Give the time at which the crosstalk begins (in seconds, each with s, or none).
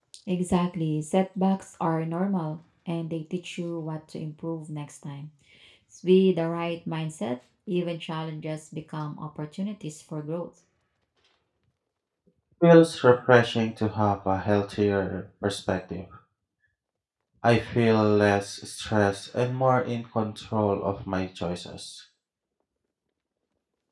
none